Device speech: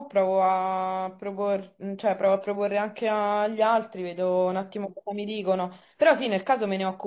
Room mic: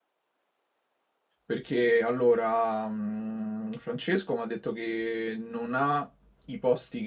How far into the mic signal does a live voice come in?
1.4 s

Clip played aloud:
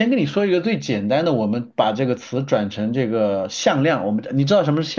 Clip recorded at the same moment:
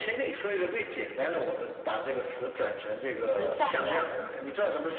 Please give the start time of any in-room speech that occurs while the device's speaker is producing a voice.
3.4 s

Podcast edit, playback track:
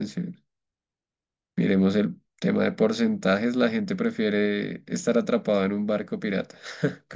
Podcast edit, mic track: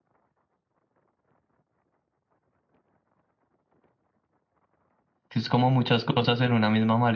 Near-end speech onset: 5.3 s

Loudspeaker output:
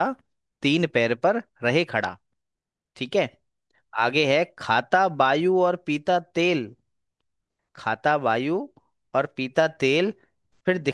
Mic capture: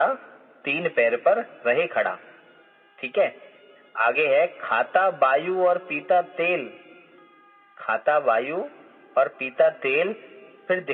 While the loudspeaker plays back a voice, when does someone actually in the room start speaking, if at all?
none

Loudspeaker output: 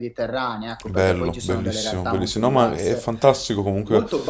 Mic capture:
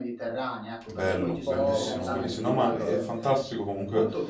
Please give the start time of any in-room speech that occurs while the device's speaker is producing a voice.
1.0 s

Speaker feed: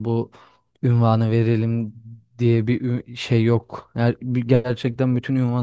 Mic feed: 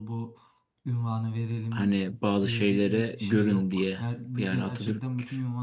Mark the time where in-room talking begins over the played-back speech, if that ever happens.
1.7 s

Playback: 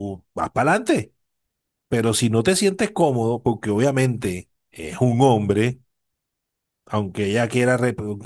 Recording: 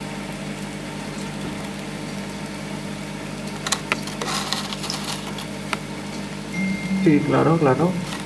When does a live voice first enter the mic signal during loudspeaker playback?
7.0 s

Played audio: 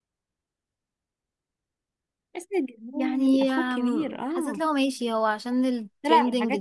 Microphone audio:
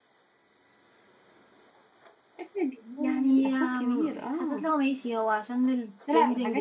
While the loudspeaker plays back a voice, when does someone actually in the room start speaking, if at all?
none

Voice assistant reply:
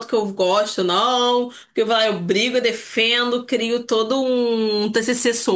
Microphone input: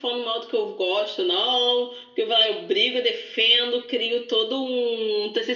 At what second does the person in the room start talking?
none

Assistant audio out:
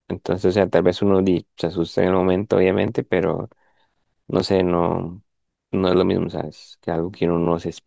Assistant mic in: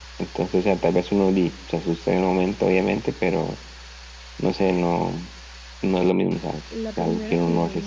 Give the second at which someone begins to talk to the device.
6.7 s

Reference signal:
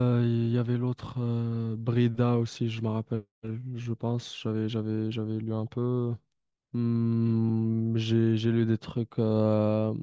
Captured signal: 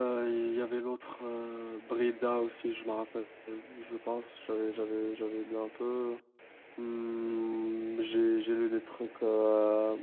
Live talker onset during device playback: none

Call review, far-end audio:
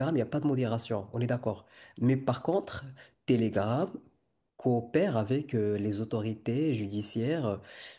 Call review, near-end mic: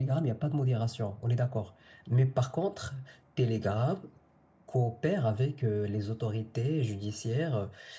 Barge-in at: none

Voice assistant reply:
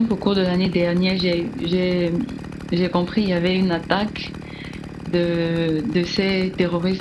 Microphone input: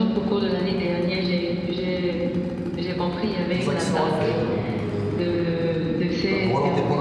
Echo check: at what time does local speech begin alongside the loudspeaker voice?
3.5 s

